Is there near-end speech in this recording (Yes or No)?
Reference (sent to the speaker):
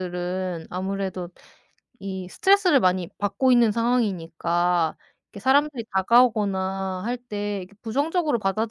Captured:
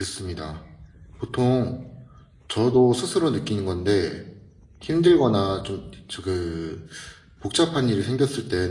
Yes